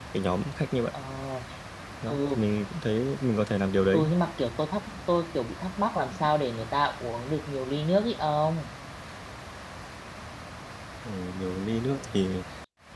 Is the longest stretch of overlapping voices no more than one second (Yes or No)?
Yes